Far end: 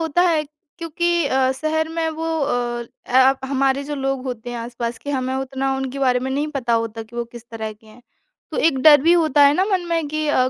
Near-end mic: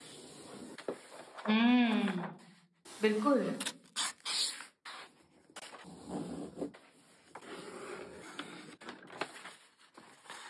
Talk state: user only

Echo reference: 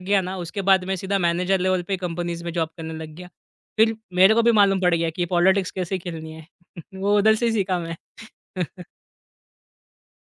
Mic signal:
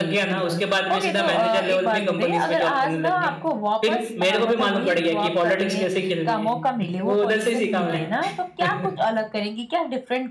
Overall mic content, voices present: both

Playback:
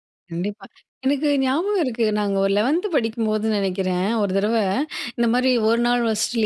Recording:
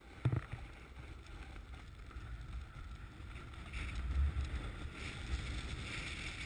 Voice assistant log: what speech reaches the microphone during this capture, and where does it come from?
neither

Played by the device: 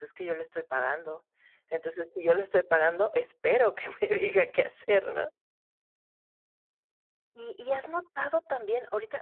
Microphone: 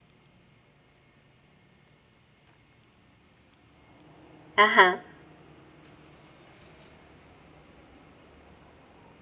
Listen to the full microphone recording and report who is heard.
user only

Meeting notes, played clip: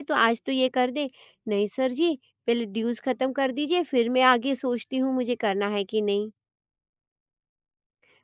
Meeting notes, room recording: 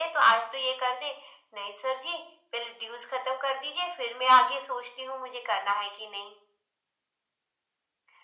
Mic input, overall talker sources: echo only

